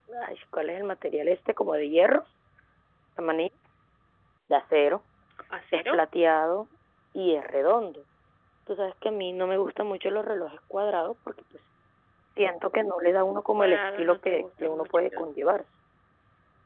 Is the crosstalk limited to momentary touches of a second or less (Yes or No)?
No